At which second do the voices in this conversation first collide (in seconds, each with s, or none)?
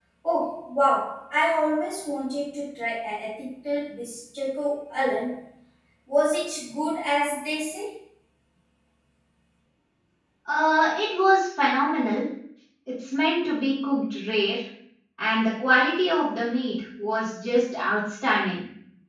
none